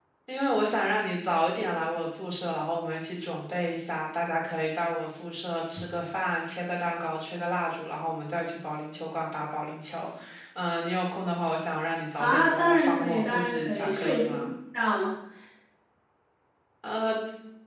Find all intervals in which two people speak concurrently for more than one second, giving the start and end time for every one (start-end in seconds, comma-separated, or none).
12.2-14.5